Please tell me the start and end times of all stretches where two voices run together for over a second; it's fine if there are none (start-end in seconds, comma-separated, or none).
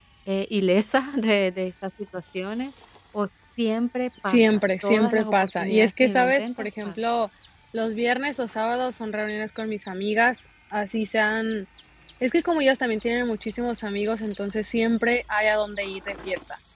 4.2-7.0